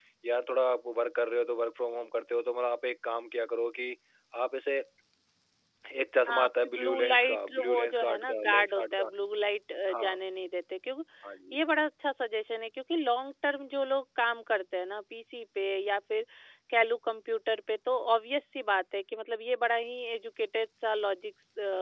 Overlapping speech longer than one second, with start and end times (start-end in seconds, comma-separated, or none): 6.3-9.1